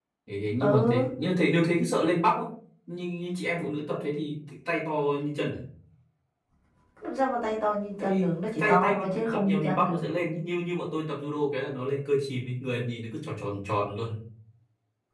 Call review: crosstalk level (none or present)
present